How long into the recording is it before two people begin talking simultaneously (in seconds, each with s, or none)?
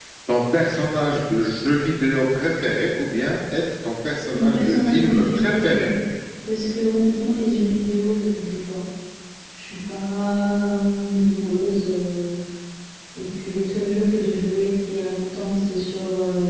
4.3 s